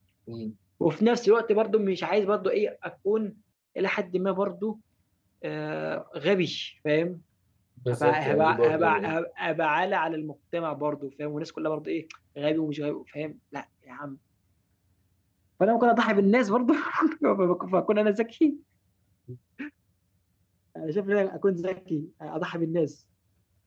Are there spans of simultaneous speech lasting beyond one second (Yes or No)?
Yes